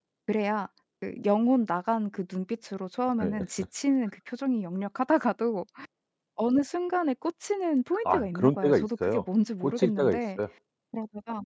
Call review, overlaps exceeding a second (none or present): present